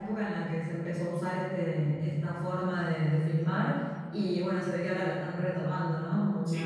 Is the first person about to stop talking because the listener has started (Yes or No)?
Yes